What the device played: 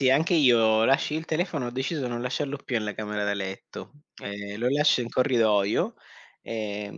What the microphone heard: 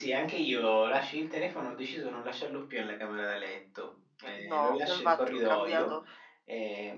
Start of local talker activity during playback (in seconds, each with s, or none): 4.3 s